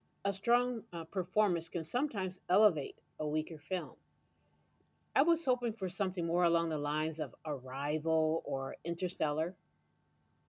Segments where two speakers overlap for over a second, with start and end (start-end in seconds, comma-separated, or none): none